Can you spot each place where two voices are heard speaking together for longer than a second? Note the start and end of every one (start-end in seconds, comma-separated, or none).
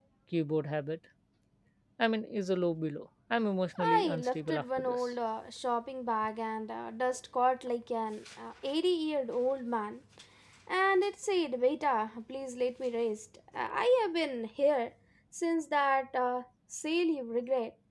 3.8-5.1